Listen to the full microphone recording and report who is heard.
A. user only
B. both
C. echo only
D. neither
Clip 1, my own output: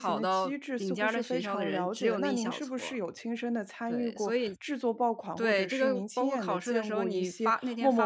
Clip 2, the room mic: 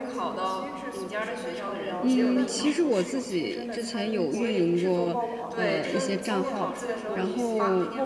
B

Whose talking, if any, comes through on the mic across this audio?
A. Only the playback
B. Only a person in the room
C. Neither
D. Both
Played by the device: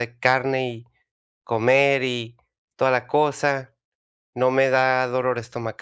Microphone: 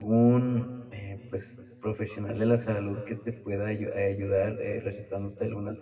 B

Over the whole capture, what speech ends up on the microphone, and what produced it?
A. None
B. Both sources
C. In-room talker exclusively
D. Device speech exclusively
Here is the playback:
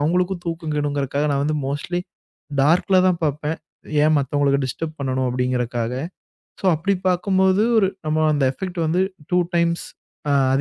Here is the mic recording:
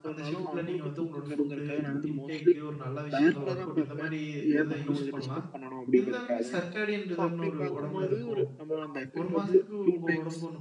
B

